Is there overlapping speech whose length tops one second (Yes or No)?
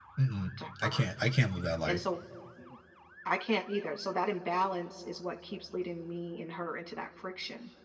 No